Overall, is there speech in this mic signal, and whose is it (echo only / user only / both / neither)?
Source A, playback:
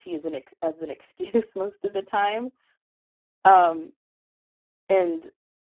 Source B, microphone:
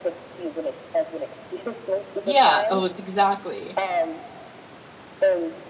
both